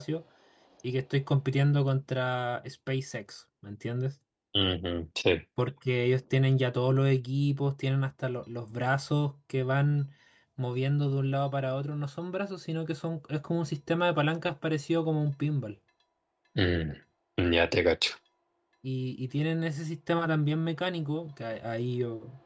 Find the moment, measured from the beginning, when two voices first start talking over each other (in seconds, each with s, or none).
none